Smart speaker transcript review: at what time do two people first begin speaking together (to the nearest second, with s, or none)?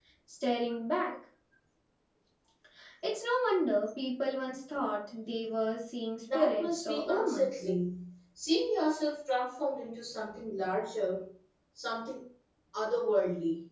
6 s